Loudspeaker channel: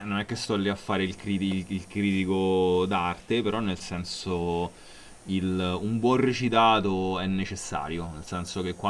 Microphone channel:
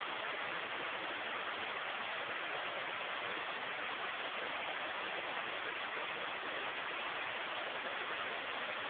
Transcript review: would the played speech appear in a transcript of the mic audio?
No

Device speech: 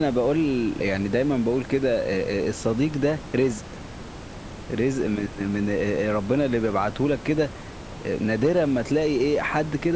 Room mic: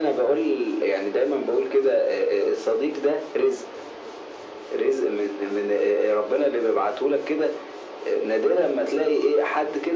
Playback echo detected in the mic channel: Yes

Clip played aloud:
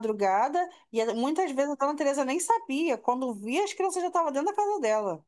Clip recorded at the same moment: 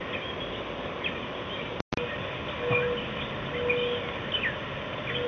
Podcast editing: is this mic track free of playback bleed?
Yes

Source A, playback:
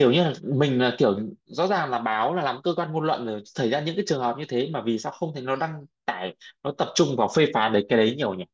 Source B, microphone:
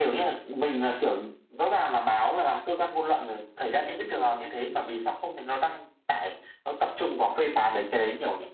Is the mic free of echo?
No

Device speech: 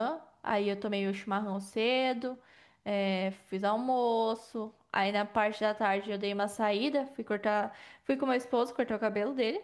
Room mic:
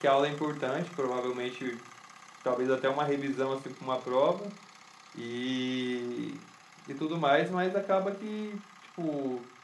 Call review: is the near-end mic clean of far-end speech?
Yes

